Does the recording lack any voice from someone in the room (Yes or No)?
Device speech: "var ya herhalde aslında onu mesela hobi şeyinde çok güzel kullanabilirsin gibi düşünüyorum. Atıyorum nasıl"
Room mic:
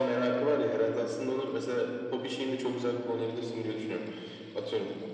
Yes